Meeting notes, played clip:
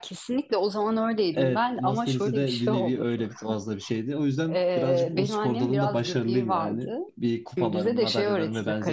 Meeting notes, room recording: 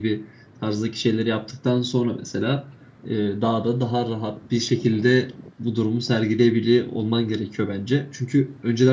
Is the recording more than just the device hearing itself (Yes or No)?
Yes